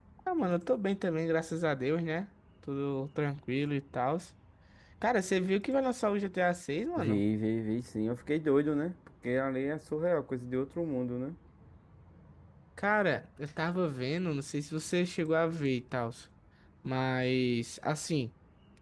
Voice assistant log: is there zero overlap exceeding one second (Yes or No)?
Yes